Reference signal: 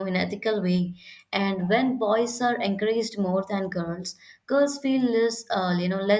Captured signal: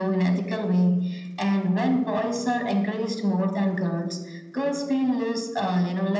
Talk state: echo only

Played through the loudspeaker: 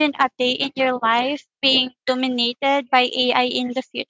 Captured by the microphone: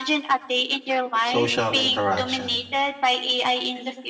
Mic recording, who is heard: both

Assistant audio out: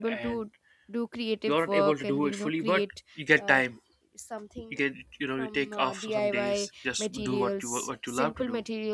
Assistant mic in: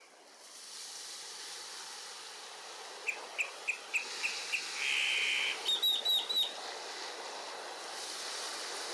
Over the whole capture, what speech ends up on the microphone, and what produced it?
neither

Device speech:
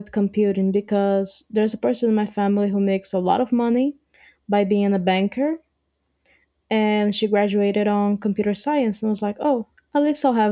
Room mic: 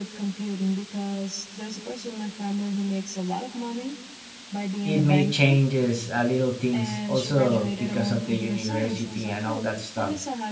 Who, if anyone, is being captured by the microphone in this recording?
both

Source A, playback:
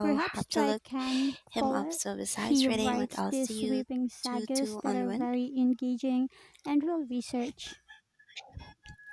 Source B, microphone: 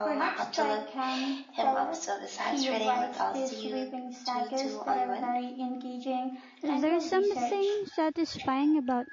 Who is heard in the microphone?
both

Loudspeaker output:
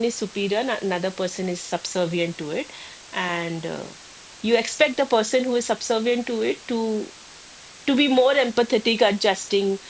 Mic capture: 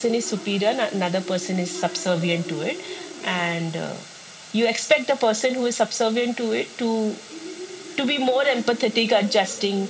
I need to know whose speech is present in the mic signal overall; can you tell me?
both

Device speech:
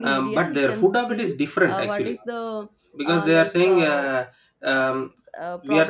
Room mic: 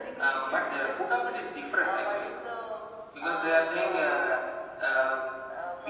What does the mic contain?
echo only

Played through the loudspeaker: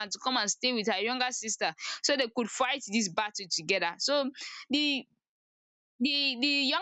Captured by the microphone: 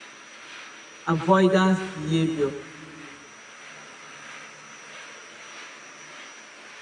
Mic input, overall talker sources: user only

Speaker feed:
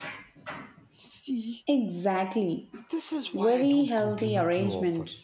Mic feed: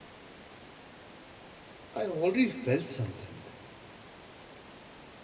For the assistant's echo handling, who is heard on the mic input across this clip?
user only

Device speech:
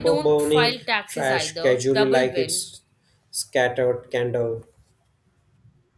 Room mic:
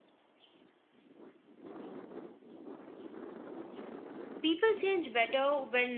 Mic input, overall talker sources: user only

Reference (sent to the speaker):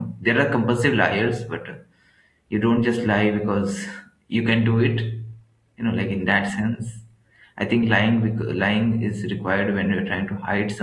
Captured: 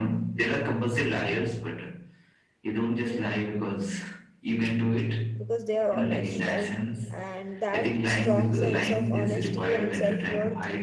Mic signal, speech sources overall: both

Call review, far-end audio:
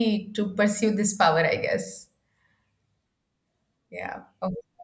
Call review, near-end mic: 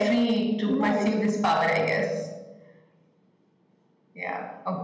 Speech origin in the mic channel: both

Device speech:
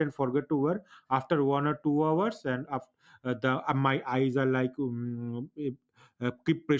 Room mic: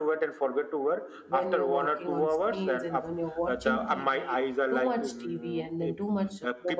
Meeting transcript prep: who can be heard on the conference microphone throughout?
both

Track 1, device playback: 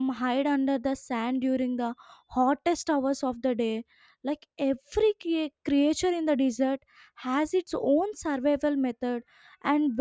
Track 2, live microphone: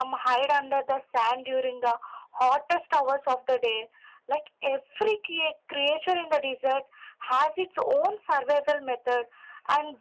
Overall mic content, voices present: echo only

